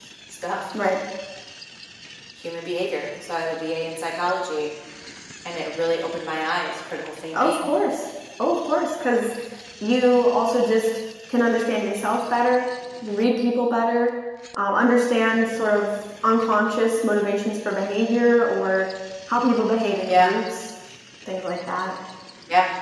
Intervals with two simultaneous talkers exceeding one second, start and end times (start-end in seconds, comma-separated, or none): none